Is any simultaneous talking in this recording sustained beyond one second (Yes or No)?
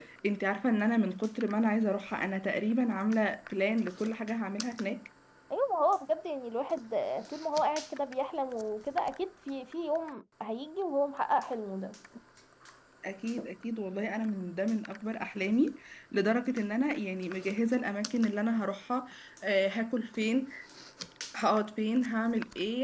No